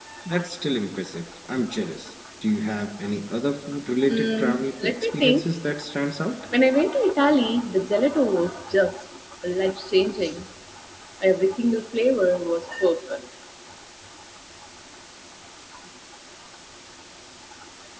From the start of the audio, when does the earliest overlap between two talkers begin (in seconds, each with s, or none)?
4.0 s